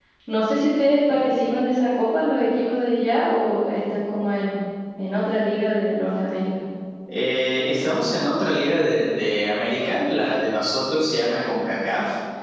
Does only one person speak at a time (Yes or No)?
Yes